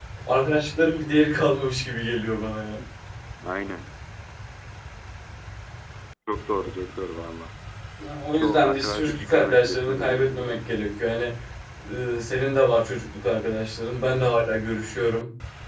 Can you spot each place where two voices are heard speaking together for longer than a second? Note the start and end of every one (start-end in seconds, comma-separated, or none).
8.3-10.6